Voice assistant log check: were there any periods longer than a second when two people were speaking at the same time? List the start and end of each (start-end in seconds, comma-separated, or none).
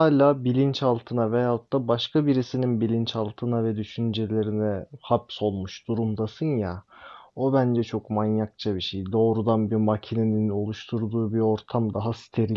none